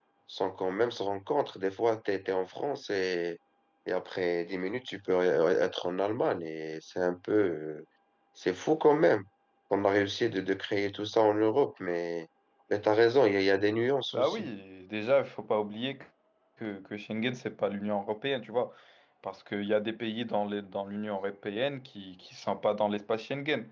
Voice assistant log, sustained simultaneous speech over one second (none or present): none